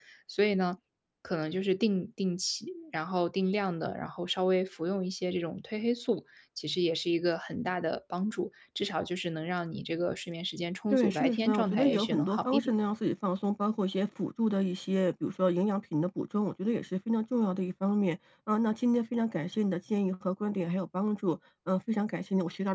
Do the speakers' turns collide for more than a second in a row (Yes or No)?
Yes